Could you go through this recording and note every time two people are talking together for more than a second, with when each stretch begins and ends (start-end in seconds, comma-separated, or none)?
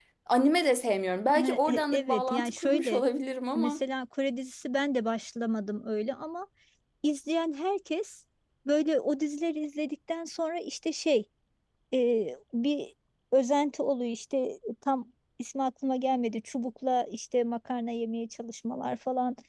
1.4-3.0